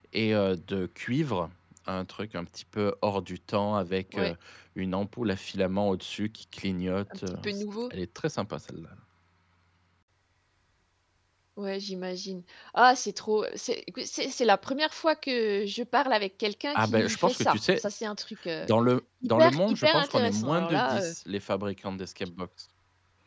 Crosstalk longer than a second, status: present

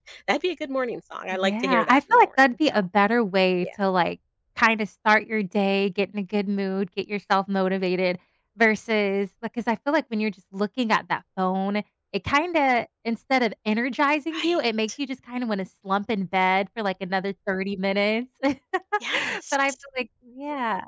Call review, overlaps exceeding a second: present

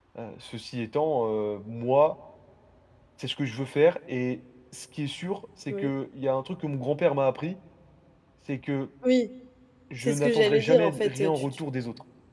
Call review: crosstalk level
present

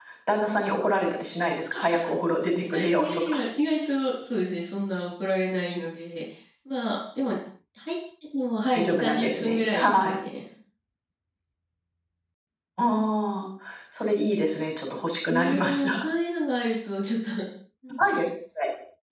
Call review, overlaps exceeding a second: present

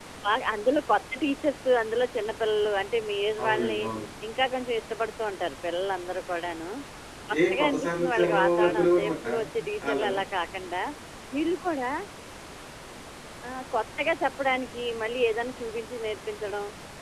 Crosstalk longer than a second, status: present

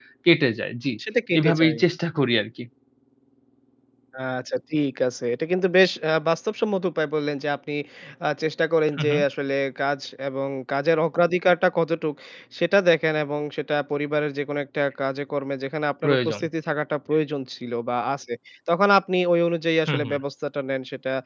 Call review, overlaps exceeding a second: none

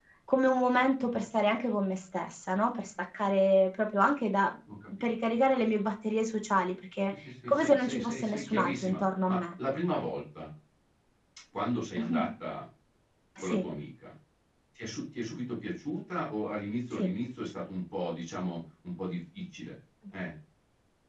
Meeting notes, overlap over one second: present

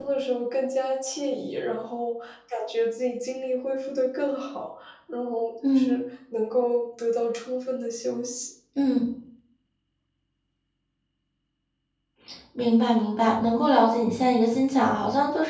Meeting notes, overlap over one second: none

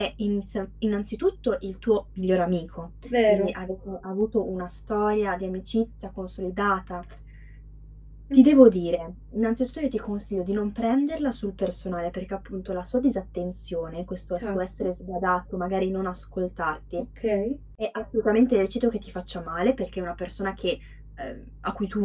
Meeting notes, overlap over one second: none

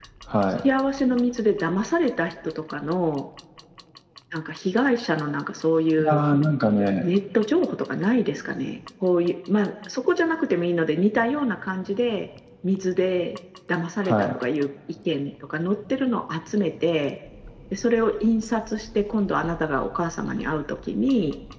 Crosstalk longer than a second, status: none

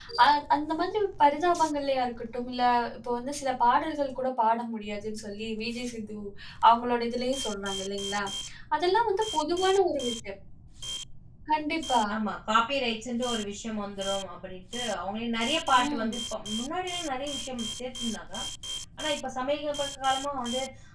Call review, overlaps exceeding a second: none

